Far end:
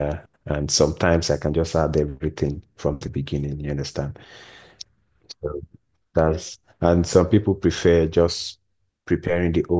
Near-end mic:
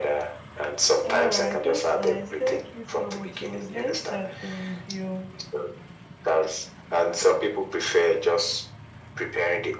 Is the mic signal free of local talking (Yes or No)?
No